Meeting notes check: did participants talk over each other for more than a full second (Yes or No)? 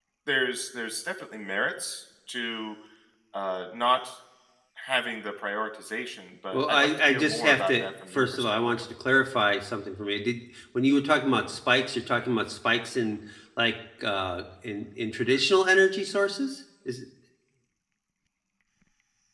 Yes